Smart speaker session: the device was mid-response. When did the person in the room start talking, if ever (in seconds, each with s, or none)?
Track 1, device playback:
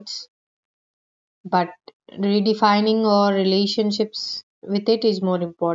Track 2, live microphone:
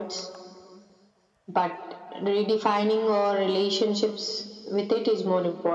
none